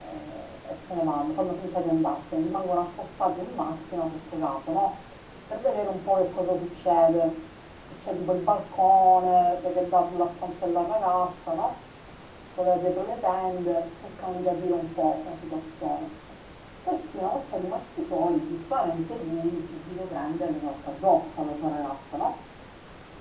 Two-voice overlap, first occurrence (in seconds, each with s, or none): none